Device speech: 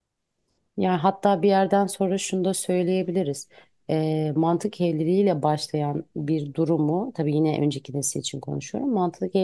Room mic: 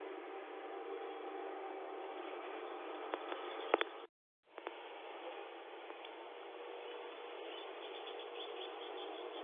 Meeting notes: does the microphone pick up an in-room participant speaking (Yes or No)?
No